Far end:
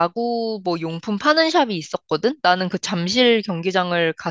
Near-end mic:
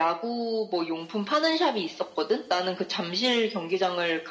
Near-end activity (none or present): none